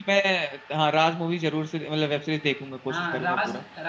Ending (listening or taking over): taking over